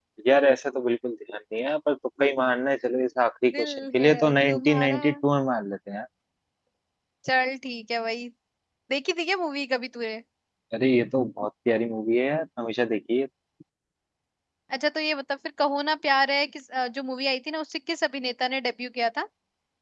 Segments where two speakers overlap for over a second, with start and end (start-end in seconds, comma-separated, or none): 3.5-5.0